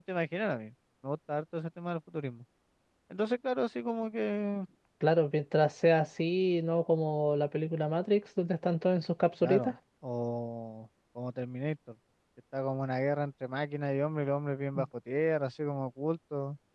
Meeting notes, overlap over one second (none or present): none